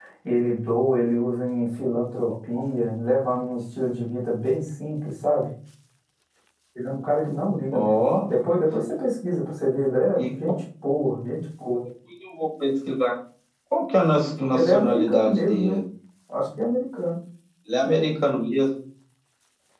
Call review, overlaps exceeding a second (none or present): present